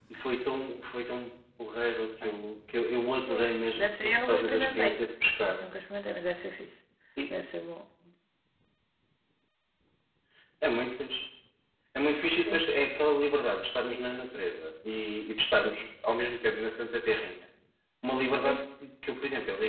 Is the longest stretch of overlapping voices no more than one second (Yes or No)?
No